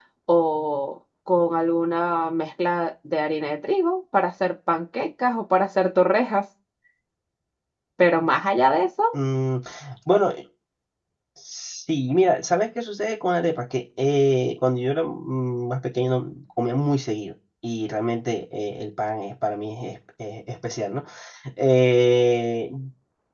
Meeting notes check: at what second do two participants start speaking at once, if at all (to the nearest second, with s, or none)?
none